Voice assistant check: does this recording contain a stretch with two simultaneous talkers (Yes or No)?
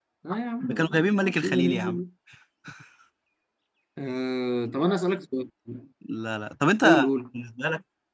Yes